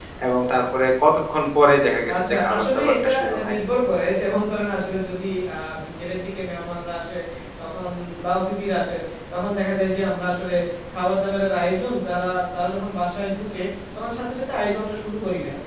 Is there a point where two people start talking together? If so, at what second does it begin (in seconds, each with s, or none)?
2.0 s